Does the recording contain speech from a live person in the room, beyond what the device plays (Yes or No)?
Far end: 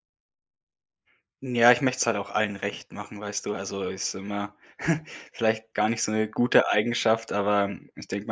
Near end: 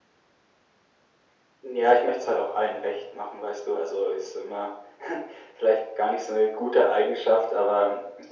No